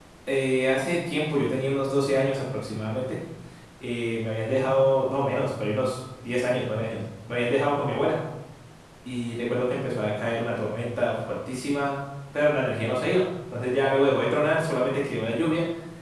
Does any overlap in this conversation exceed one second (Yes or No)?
No